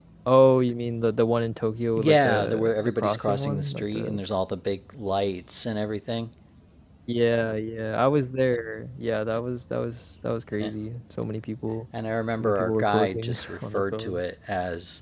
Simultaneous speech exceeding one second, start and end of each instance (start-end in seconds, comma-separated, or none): 2.0-4.2, 12.4-14.2